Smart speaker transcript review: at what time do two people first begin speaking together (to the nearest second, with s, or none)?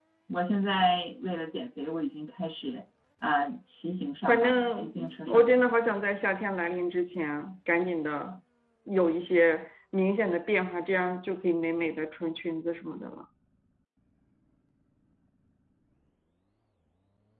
4 s